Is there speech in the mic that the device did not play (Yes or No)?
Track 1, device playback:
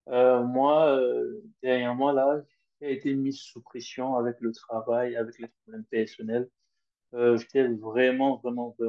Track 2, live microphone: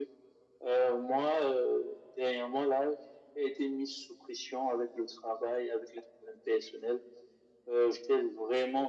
No